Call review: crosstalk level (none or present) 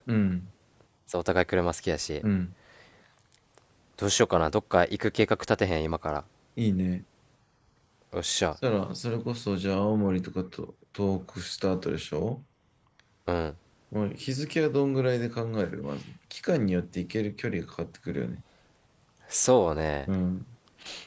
none